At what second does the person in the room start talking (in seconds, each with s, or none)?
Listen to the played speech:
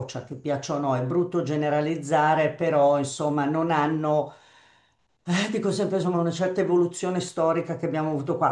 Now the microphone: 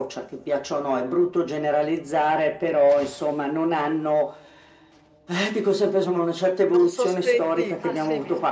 6.7 s